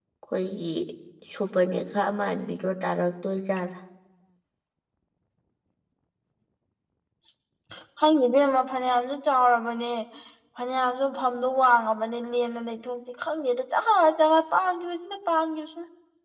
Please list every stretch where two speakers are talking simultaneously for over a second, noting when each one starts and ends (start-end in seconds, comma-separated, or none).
none